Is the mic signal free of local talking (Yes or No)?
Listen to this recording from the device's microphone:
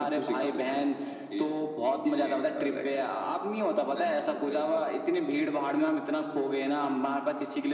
Yes